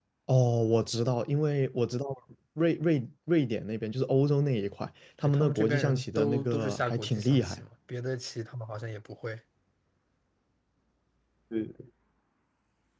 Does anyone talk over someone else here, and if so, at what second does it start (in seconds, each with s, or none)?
5.2 s